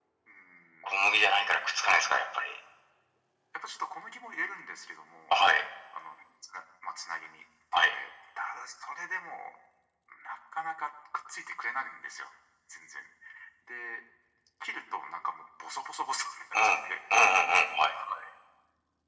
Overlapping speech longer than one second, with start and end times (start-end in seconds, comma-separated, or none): none